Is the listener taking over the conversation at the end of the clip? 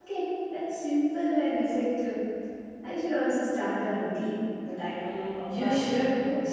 Yes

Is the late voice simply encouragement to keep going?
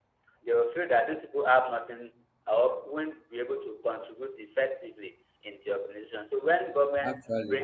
Yes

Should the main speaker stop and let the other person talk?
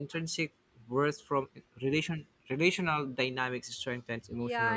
Yes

